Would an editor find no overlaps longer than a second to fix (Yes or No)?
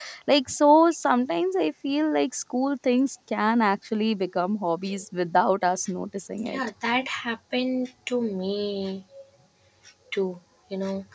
Yes